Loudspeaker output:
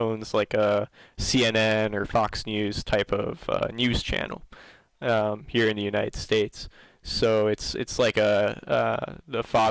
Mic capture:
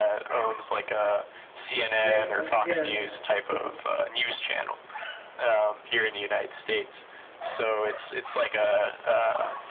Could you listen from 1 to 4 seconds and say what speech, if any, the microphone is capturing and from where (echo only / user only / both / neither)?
both